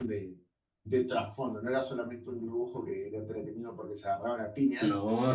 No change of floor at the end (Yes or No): Yes